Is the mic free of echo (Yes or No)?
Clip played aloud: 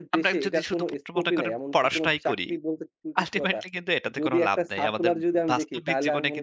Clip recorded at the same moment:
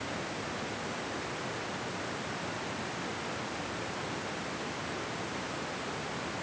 Yes